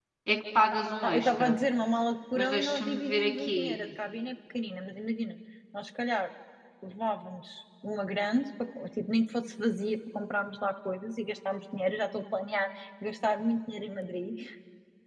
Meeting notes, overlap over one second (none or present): present